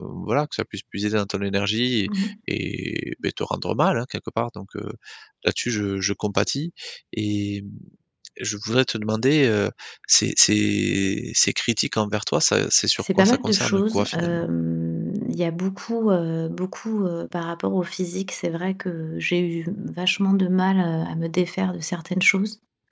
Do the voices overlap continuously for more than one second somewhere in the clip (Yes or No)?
Yes